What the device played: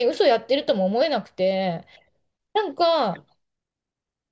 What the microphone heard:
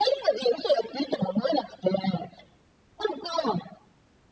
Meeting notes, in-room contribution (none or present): none